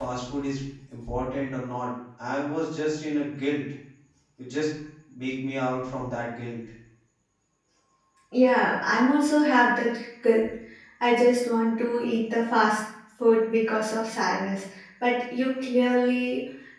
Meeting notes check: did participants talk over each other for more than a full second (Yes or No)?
No